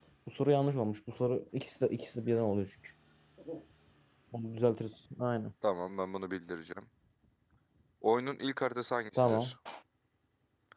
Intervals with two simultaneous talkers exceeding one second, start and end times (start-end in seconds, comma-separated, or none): none